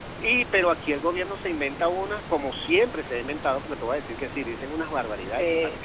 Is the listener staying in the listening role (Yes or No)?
Yes